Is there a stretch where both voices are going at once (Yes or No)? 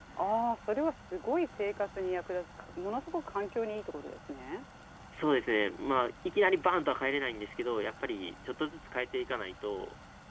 No